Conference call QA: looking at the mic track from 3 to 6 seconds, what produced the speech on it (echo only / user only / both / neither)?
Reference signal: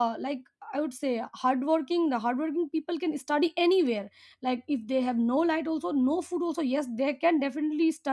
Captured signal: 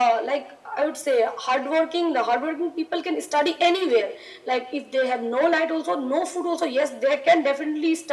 echo only